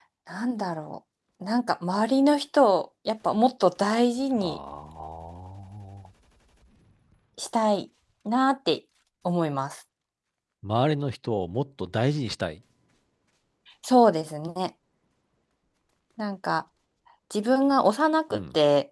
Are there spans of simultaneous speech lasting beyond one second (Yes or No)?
No